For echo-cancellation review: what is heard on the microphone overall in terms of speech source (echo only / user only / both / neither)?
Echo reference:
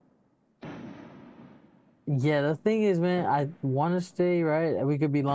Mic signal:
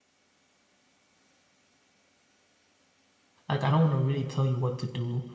user only